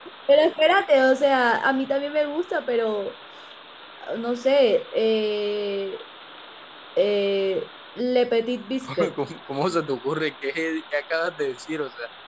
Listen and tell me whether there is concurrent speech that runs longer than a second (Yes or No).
No